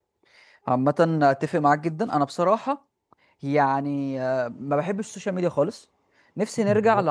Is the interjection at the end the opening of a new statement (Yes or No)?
No